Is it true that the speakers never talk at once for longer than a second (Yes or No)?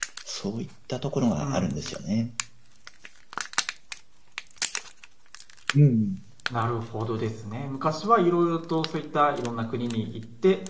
Yes